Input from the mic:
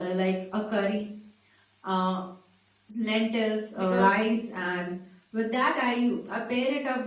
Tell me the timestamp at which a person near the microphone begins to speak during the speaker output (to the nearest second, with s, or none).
4 s